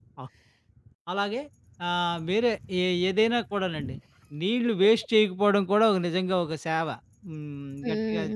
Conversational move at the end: taking over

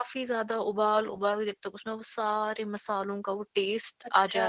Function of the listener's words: taking over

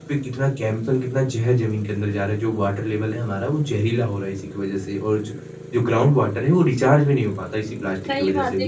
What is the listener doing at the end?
taking over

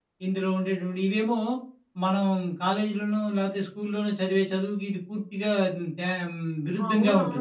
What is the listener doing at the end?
taking over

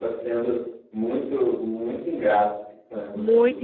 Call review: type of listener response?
taking over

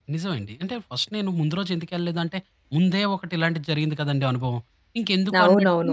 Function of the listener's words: taking over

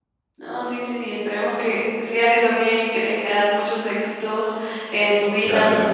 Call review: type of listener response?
listening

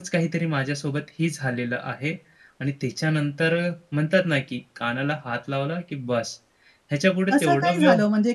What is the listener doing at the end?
taking over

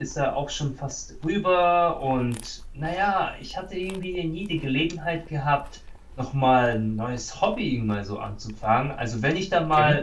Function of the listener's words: listening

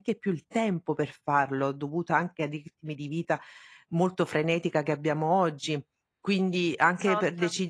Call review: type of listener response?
listening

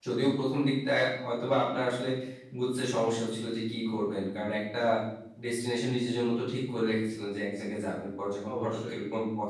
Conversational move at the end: listening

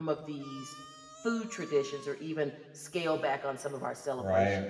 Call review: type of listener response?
taking over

